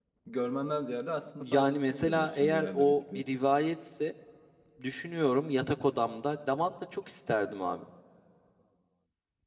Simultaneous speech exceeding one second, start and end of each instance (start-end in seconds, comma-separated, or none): 1.4-3.2